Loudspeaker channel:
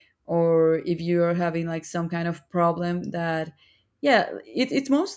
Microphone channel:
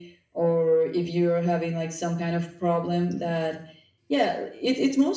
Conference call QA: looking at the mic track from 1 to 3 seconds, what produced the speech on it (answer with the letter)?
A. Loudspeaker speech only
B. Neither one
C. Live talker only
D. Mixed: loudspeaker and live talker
A